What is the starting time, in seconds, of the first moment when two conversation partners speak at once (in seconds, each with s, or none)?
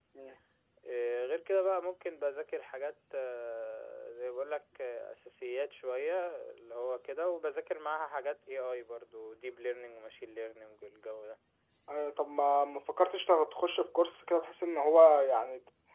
none